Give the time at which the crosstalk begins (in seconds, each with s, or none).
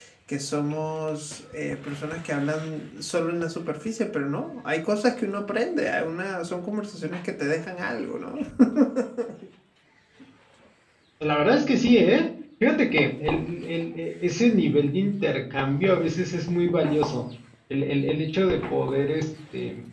none